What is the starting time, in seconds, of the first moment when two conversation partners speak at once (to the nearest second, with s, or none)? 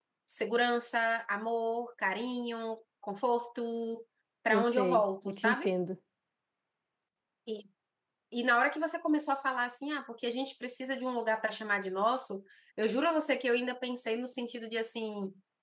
4 s